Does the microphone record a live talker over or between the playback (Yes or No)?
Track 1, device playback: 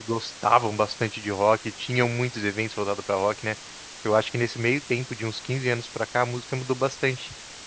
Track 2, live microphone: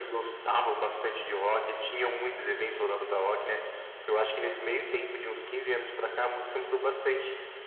No